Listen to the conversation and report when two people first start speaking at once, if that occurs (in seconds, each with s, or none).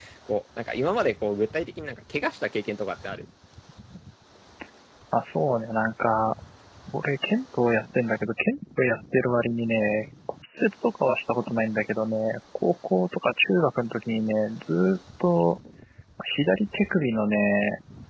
none